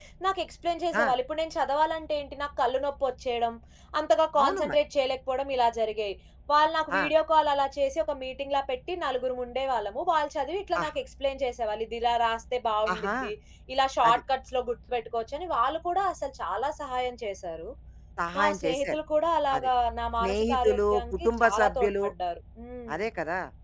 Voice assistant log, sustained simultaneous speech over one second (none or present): present